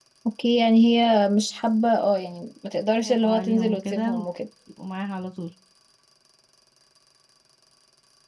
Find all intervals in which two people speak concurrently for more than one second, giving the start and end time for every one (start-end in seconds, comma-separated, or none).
3.0-4.2